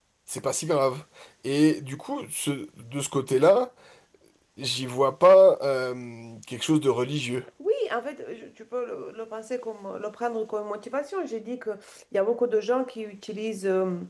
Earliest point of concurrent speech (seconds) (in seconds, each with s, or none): none